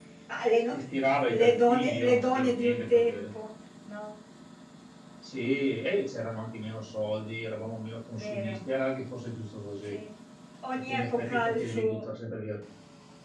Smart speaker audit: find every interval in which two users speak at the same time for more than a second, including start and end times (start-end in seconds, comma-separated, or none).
1.3-3.2, 10.9-12.1